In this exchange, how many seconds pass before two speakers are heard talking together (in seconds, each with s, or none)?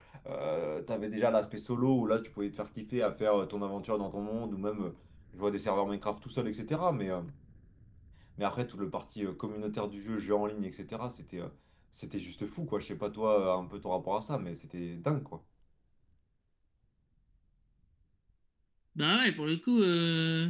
none